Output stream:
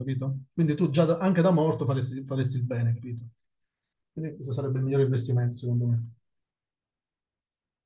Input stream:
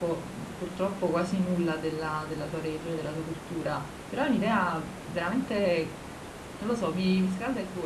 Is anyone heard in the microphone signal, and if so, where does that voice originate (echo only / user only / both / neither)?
user only